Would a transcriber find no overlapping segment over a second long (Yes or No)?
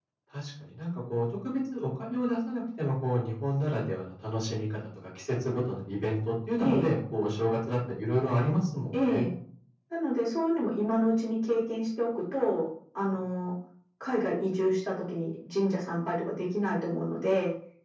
Yes